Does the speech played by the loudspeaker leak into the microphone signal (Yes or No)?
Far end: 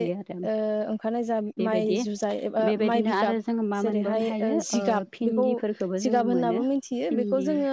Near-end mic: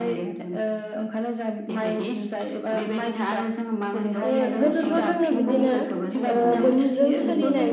Yes